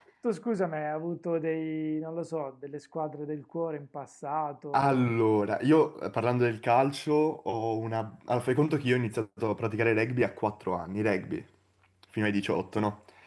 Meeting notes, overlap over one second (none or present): none